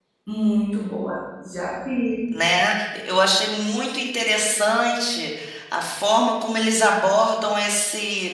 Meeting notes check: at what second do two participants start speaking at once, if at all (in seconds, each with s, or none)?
none